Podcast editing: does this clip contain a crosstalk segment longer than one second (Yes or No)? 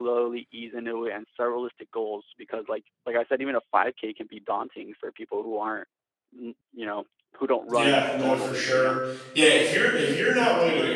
Yes